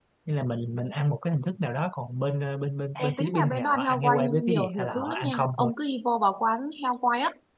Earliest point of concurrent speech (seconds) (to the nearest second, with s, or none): 3 s